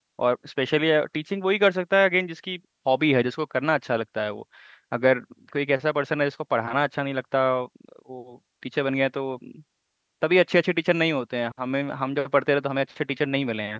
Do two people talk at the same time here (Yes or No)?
No